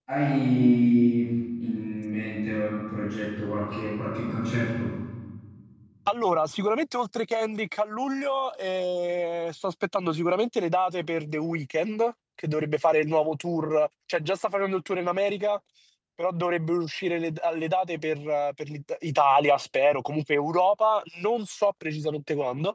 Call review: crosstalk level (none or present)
none